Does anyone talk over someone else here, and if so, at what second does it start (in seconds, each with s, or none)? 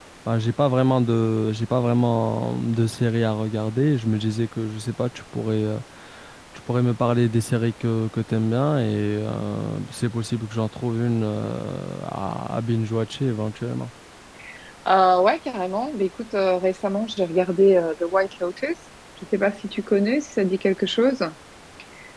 none